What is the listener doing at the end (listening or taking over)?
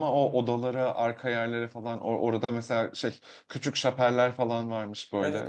taking over